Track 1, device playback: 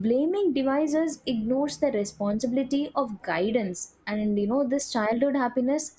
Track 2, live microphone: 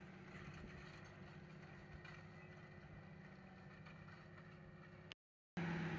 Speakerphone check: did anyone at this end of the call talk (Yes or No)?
No